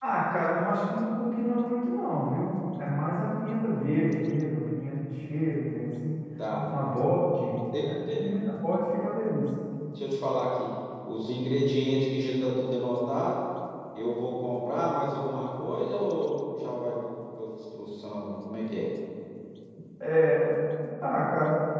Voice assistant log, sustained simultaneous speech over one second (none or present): none